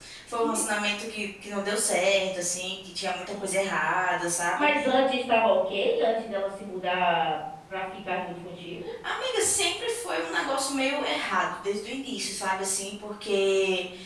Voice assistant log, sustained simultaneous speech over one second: none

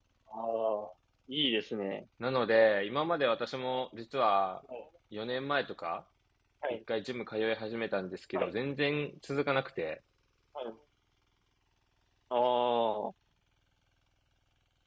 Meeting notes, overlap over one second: none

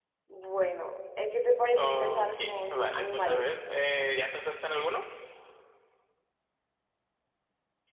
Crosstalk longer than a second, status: present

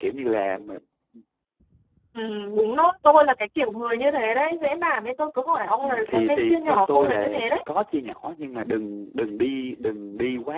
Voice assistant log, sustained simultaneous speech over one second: present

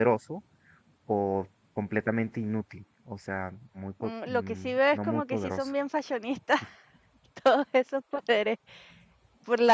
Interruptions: present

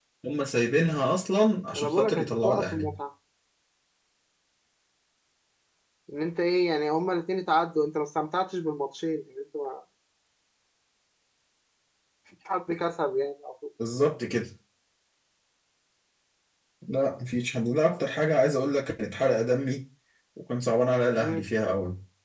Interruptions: present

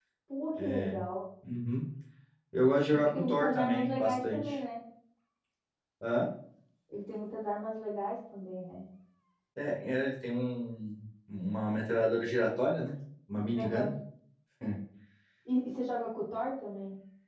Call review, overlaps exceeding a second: present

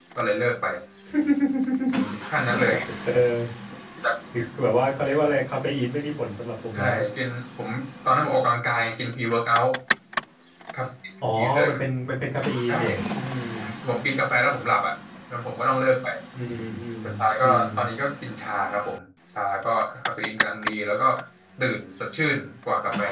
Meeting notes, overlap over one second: none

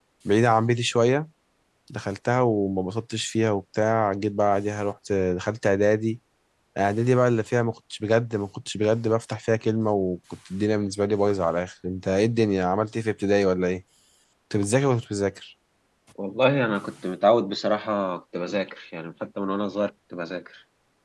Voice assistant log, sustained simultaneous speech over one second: none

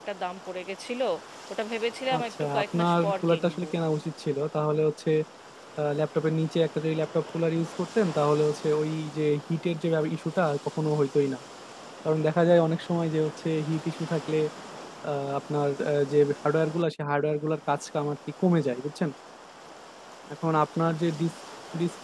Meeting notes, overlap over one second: present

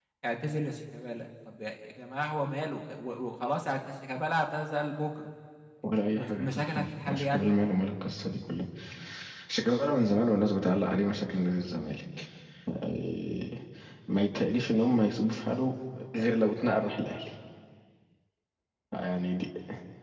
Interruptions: present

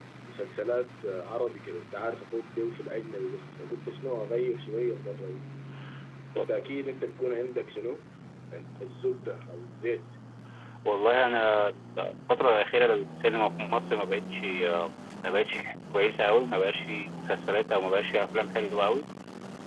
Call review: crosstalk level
none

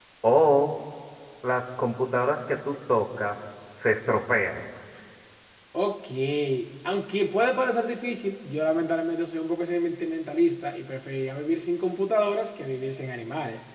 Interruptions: none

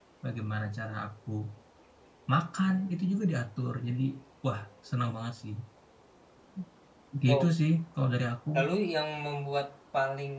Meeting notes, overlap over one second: none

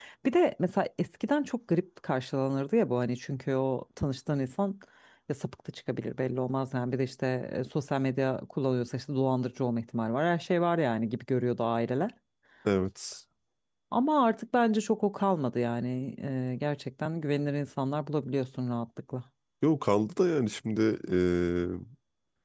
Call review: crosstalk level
none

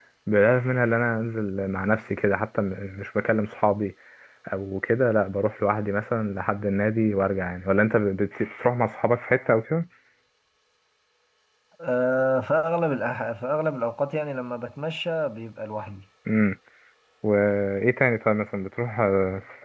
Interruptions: none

